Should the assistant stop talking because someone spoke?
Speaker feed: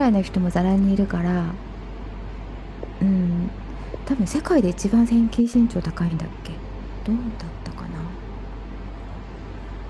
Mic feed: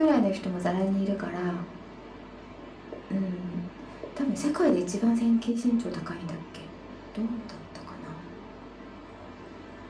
No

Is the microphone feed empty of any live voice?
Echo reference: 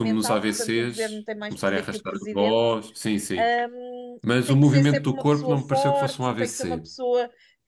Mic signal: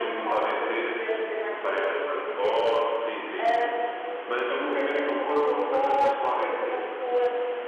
Yes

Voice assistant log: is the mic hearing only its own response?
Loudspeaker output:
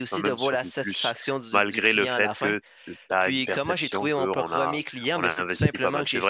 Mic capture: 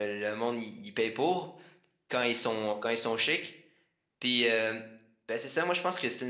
No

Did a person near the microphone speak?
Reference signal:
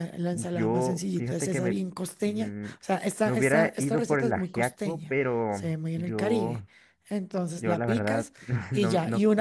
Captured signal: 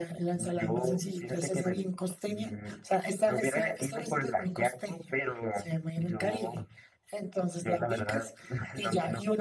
No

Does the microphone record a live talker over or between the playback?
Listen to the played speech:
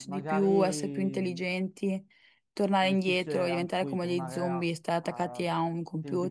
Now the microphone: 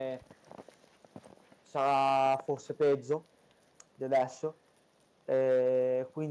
Yes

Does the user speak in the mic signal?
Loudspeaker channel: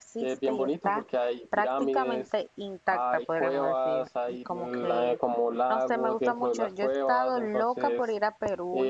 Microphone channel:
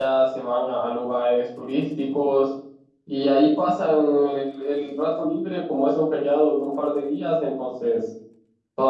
Yes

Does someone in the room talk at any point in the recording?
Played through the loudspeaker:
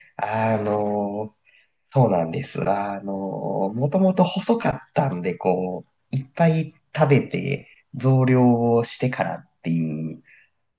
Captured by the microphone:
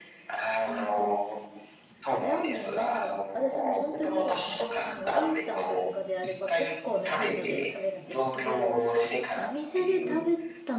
Yes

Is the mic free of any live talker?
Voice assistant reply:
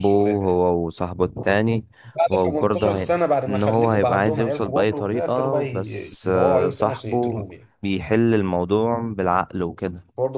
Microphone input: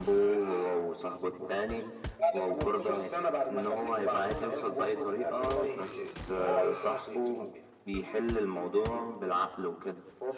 Yes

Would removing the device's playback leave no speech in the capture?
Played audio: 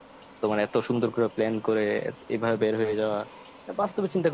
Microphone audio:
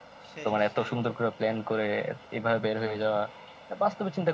No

